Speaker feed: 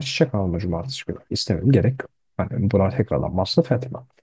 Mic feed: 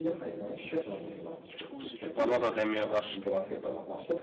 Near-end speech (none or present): present